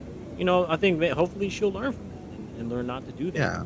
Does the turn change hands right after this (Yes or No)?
No